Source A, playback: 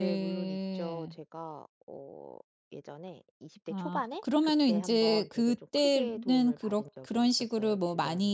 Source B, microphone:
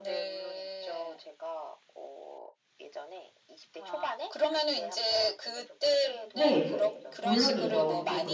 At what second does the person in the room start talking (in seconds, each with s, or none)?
6.3 s